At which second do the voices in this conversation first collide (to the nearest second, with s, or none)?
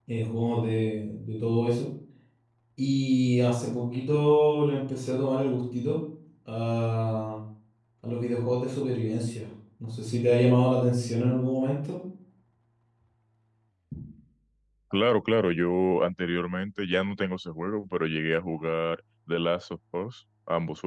none